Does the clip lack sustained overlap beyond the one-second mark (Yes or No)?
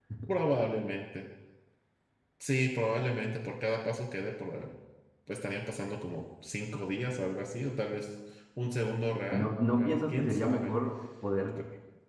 No